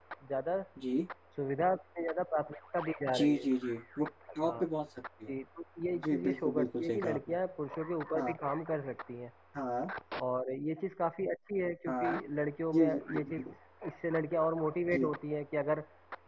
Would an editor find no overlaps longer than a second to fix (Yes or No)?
No